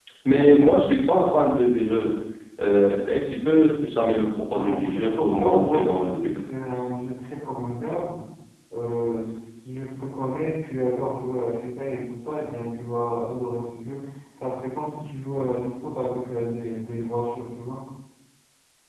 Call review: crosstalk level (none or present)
present